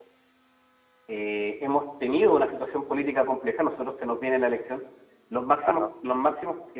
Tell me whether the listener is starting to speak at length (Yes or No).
No